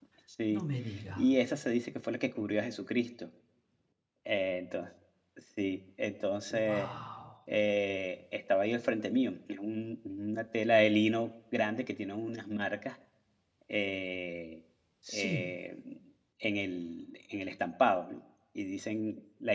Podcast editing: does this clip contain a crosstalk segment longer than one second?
No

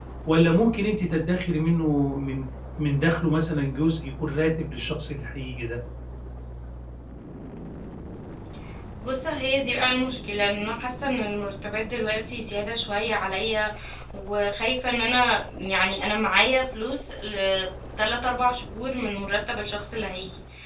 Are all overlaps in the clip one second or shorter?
Yes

